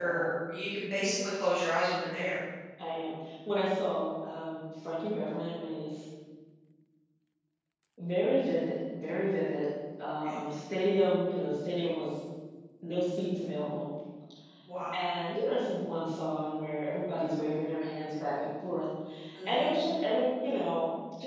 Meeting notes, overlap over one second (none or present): none